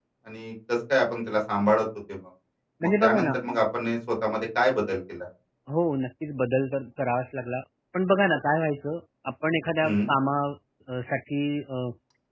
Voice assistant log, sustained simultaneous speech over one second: none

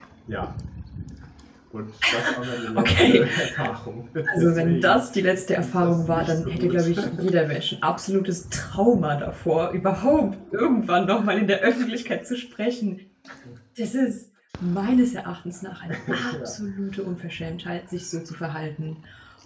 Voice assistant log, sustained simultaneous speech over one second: present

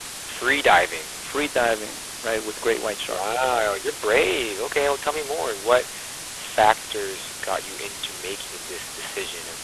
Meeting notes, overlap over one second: none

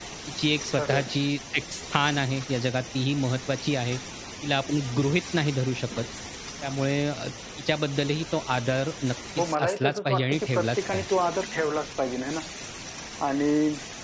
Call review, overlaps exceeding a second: present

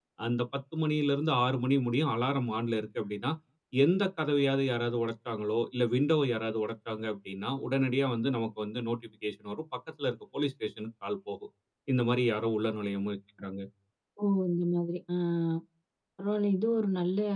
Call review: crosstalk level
none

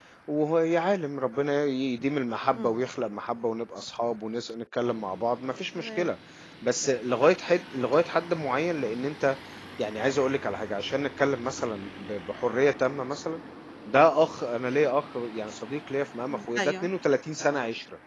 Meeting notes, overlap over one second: none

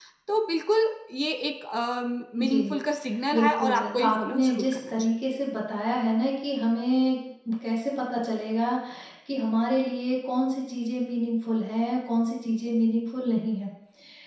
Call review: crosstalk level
present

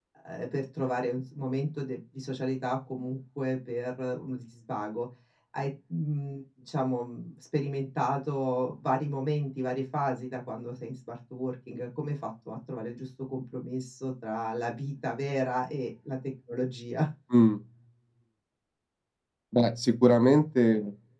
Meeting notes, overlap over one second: none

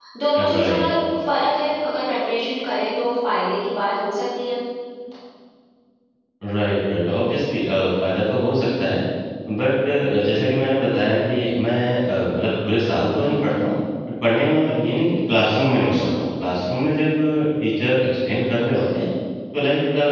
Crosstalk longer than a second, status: none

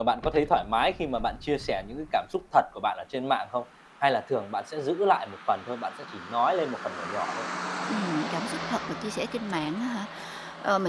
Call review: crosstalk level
none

